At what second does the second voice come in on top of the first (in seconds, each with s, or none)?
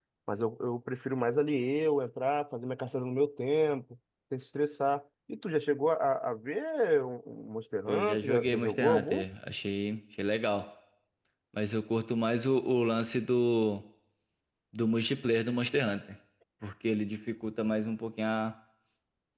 7.9 s